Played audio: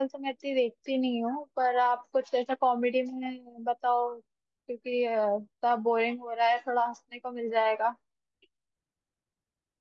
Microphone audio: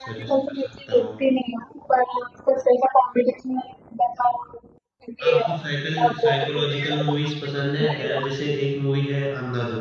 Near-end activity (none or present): present